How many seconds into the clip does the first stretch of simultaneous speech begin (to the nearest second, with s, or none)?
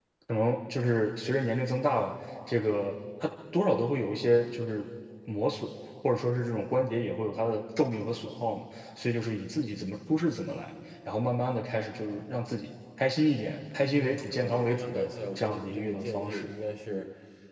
14 s